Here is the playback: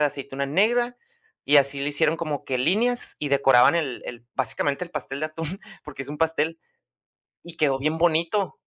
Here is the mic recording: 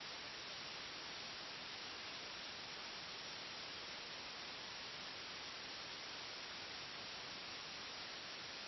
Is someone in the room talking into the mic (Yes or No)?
No